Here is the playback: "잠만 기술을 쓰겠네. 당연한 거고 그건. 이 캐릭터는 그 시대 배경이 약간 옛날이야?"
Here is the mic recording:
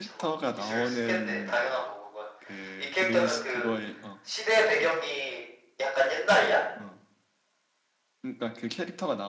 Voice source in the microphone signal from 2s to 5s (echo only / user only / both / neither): both